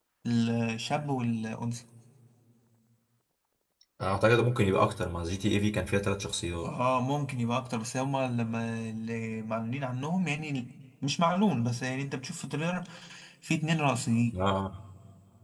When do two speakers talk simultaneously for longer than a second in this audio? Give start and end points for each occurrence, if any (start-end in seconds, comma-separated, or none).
none